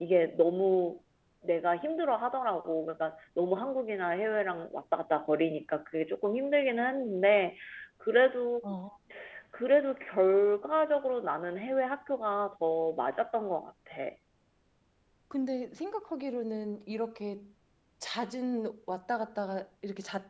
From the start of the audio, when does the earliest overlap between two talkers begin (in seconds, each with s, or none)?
none